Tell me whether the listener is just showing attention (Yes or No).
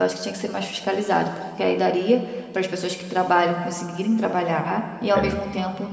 Yes